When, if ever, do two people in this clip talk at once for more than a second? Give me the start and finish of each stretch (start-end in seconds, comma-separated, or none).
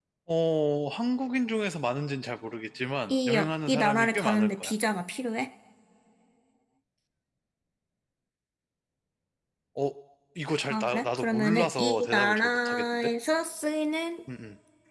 3.1-4.7, 10.7-13.1